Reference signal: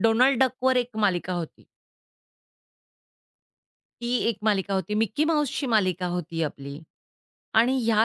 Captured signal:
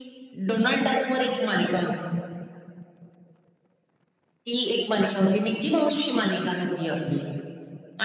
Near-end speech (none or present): none